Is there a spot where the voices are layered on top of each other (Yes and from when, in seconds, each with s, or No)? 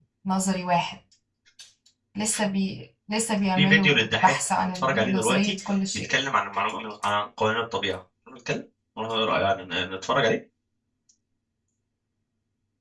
Yes, from 3.6 s